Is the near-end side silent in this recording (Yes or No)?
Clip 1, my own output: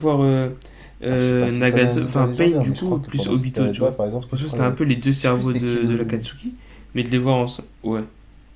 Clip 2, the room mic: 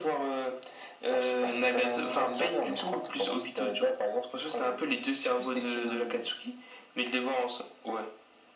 Yes